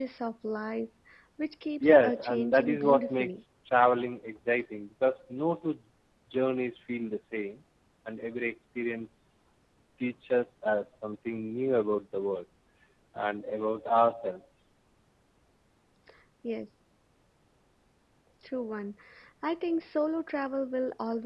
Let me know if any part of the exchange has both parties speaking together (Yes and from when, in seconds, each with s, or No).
Yes, from 1.8 s